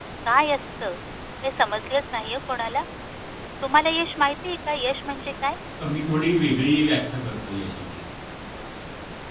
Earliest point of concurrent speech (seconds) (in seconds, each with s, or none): none